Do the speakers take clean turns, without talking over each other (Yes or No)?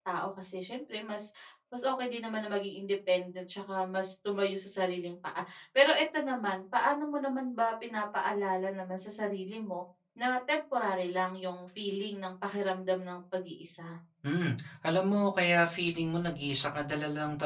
Yes